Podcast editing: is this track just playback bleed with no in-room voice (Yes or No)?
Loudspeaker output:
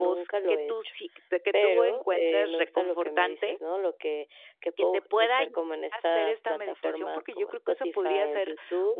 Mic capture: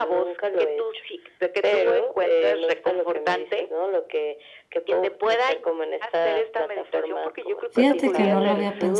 No